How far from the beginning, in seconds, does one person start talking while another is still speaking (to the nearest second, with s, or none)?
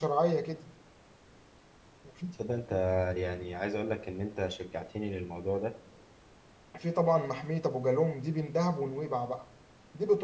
none